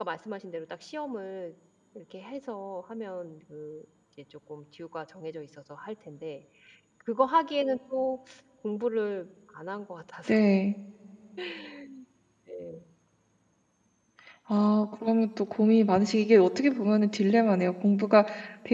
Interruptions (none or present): none